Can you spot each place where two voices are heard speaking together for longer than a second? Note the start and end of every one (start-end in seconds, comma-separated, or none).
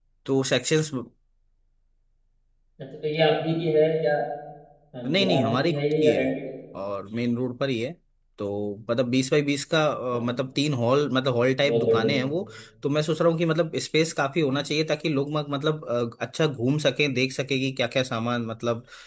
5.0-6.2